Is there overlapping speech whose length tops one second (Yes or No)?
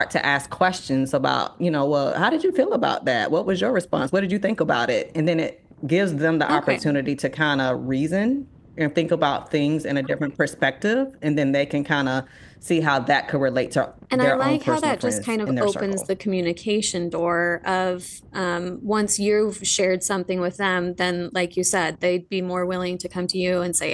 Yes